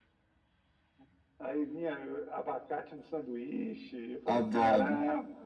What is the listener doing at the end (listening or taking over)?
taking over